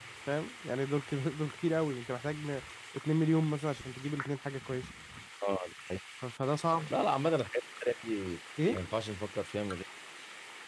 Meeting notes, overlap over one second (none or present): none